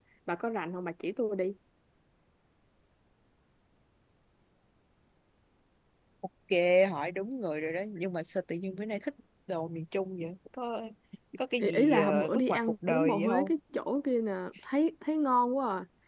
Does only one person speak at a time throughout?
No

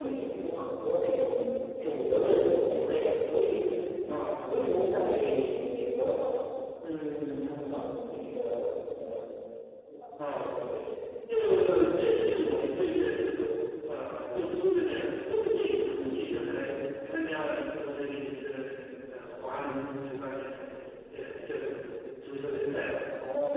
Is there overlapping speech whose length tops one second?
No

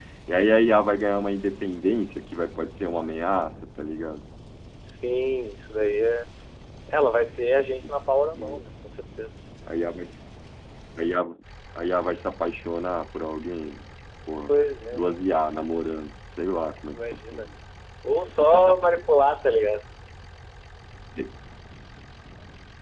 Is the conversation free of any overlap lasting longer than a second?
Yes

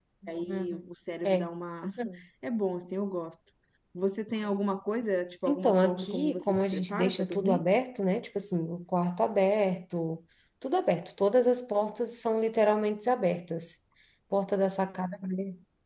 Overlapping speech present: Yes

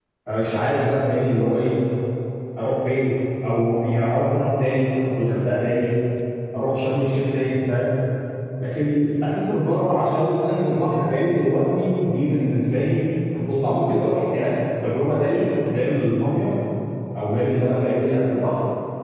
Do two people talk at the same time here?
No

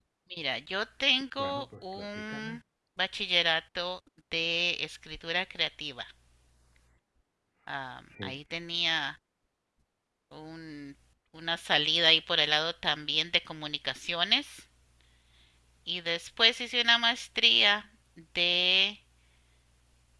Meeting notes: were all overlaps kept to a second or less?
No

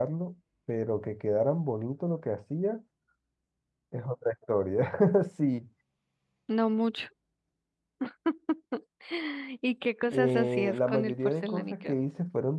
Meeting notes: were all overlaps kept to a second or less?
No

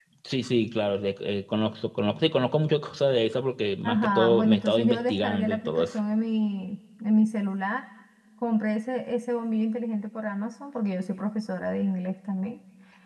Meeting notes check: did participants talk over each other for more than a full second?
Yes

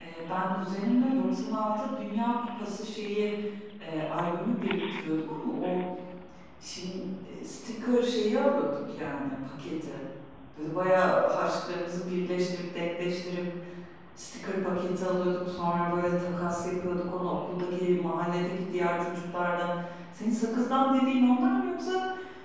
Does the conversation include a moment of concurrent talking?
No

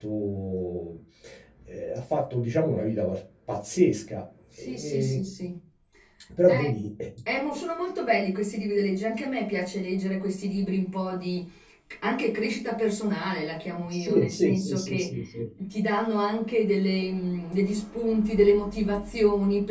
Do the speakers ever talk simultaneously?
Yes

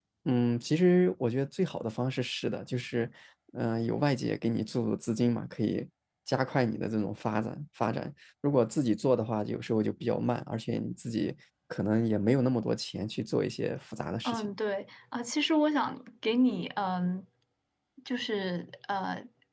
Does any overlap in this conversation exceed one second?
No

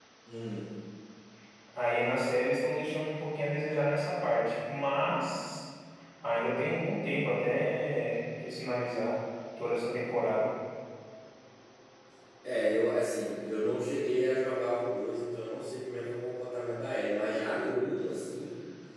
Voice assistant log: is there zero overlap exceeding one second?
Yes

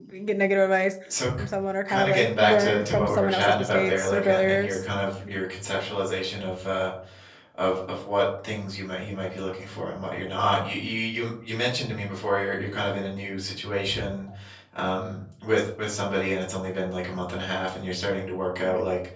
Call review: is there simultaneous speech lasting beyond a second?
Yes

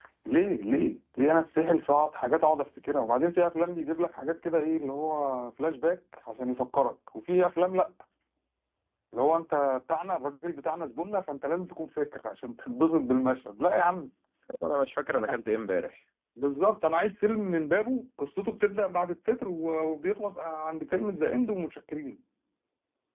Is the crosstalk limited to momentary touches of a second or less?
Yes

